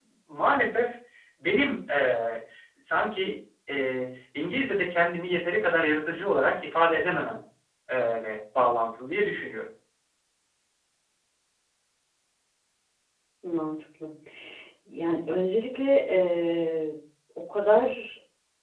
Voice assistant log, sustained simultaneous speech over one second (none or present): none